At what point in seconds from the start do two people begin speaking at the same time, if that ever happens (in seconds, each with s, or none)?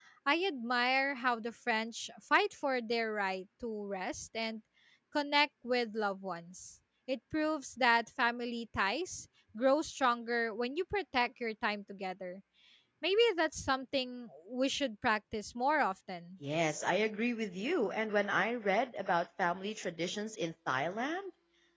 none